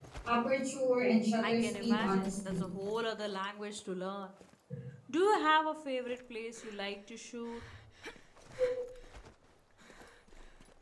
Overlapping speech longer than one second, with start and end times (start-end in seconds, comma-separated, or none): 1.4-2.6